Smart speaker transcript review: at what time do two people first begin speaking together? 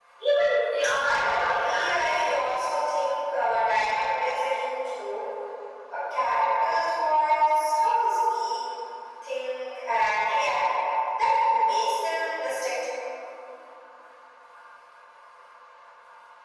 1.0 s

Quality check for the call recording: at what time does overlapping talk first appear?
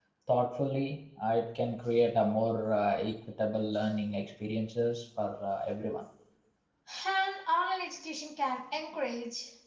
none

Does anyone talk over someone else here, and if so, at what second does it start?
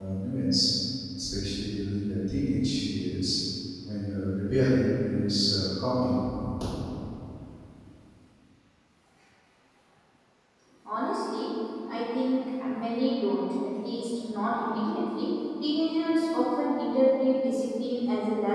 none

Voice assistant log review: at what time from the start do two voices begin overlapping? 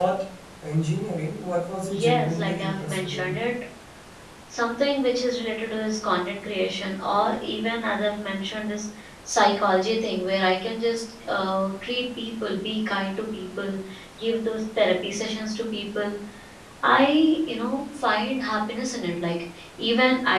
1.9 s

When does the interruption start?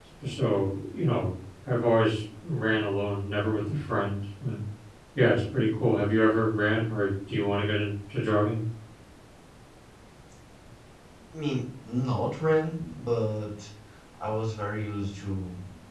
none

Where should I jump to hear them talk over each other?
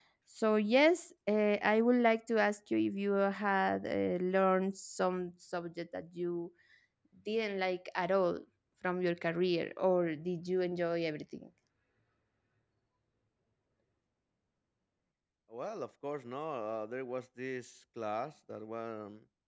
none

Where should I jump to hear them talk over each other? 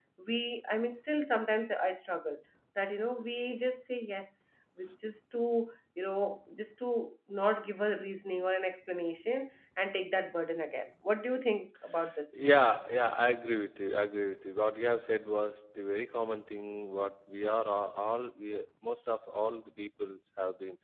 none

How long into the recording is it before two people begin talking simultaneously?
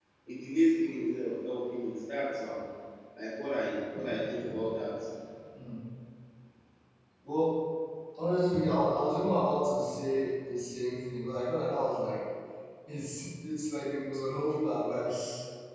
none

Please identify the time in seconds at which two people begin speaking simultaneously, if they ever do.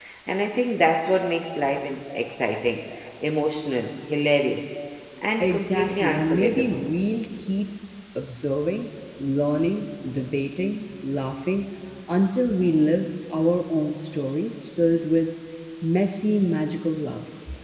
5.4 s

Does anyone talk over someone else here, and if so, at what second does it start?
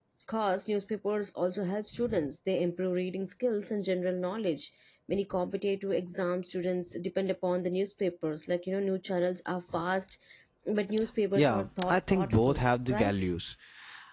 11.4 s

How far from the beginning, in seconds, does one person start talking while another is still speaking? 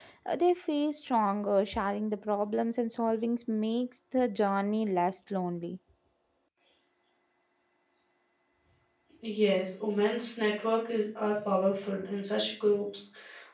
none

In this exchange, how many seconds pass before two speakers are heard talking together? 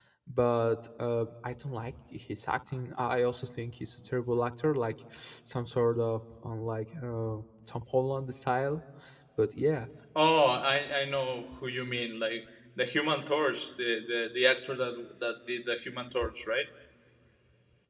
none

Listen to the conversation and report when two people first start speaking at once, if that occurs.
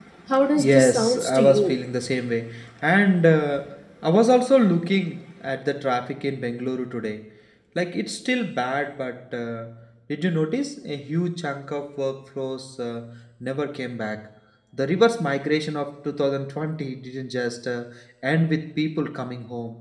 0.6 s

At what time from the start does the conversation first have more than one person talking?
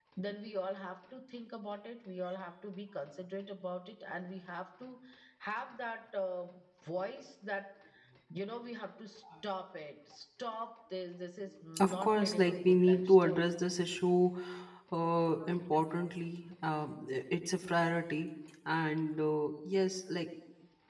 11.8 s

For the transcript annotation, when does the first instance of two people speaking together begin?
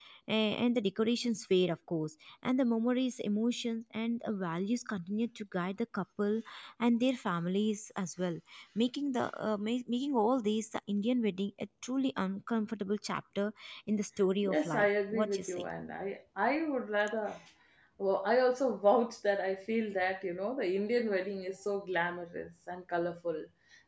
14.4 s

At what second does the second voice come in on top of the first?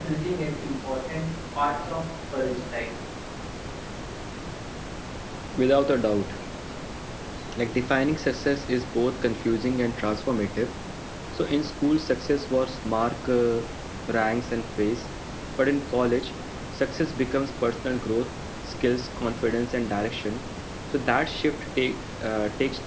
none

